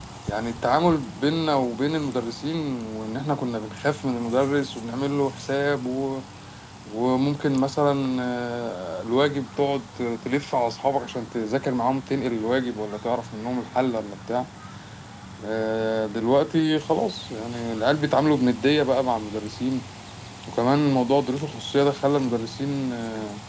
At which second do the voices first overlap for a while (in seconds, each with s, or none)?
none